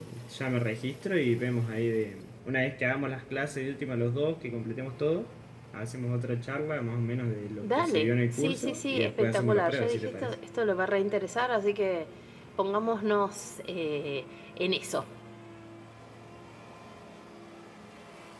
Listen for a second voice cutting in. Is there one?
Yes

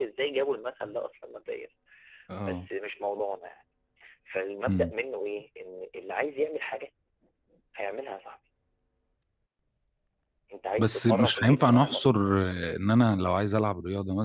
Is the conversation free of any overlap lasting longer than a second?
No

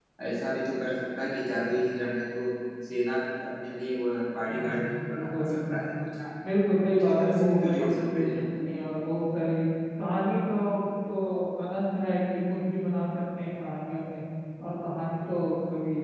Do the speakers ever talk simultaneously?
Yes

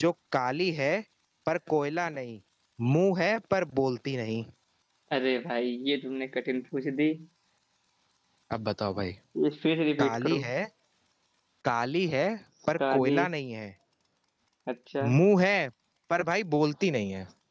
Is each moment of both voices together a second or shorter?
Yes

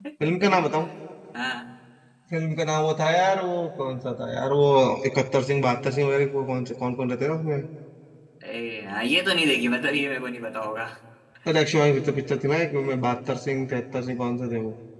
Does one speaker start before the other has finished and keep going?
No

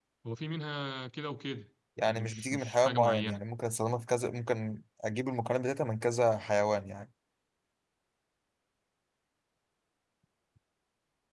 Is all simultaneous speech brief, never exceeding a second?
No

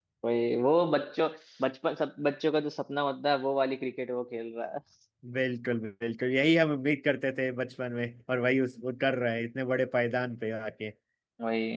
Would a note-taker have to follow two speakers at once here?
No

